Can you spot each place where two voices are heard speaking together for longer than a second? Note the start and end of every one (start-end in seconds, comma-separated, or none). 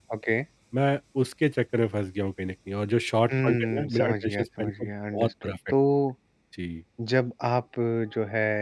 3.4-5.5